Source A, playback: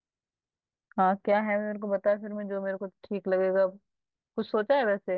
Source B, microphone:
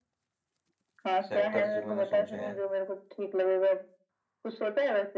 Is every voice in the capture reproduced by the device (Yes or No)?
No